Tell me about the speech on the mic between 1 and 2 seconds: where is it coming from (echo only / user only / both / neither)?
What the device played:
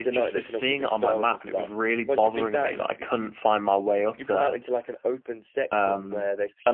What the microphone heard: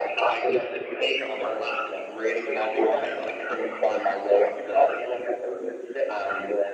echo only